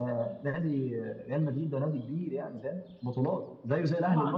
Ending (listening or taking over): taking over